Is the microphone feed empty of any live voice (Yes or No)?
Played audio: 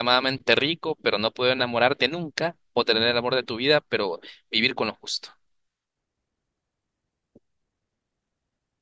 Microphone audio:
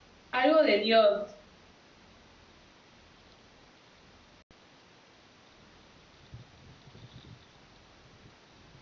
No